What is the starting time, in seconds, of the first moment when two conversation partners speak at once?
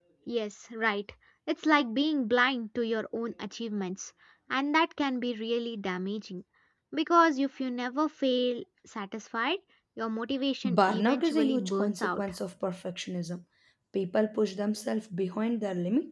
10.6 s

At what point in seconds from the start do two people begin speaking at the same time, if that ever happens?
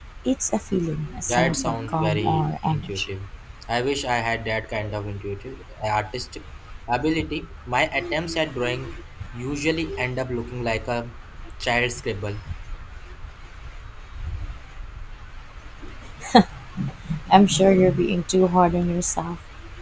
1.3 s

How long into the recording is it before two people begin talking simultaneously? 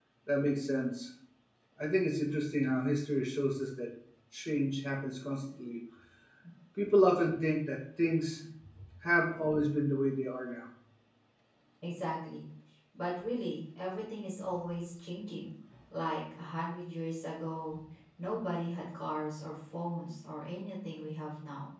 none

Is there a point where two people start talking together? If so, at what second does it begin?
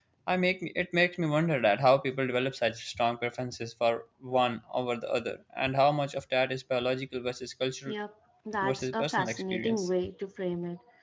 8.6 s

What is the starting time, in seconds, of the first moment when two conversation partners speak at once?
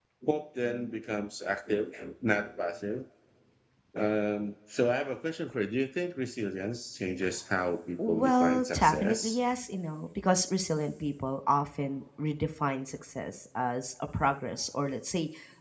8.0 s

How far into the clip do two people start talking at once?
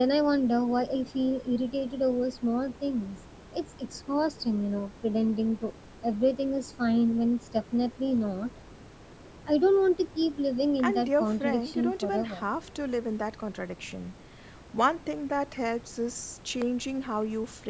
10.8 s

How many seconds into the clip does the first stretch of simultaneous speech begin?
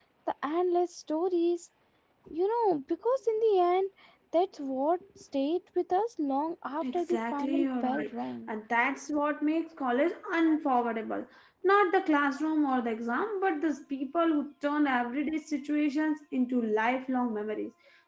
6.8 s

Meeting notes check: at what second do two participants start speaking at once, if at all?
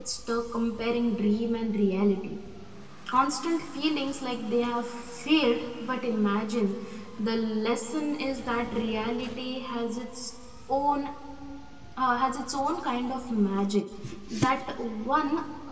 none

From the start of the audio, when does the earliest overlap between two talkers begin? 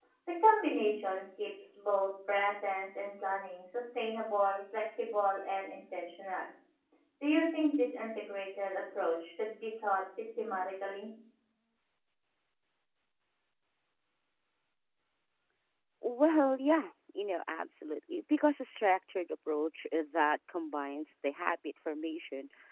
none

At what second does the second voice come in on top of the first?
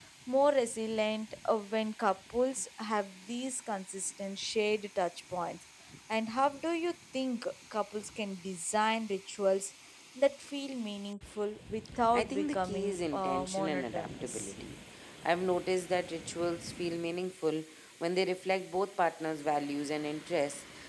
12.1 s

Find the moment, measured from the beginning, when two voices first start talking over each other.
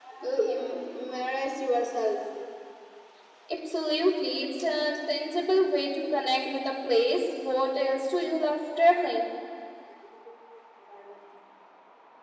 none

